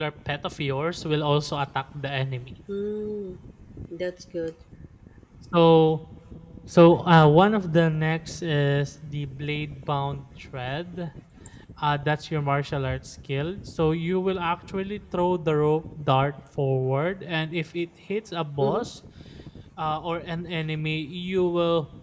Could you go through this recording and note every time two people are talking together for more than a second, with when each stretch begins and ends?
none

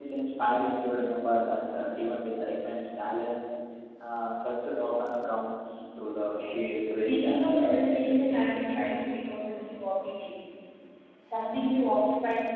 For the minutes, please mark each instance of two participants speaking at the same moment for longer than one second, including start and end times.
6.9-8.7

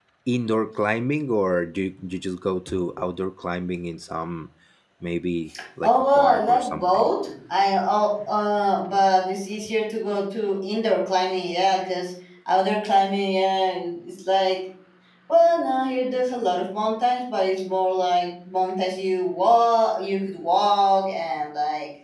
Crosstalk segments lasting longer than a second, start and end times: 5.8-7.1

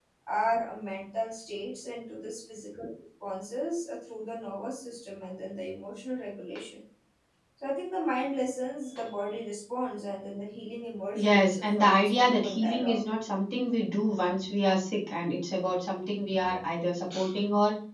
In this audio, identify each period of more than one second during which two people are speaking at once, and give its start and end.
11.2-13.0

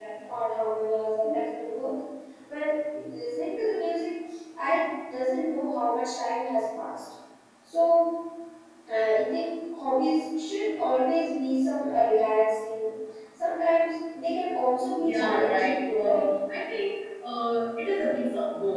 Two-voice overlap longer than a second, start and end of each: 15.0-16.3

